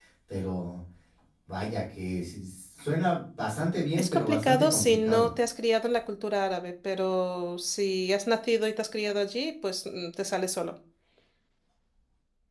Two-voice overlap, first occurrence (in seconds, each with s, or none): 4.0 s